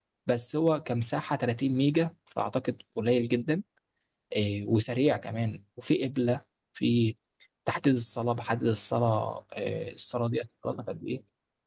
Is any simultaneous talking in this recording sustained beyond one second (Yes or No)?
No